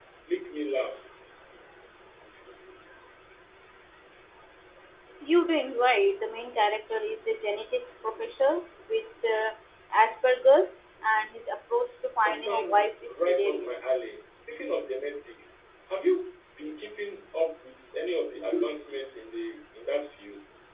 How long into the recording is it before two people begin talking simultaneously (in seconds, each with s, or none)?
12.2 s